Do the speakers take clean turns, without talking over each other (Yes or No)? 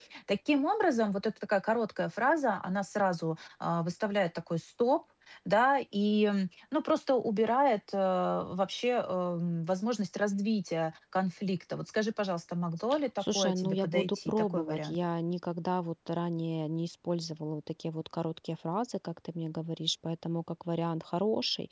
No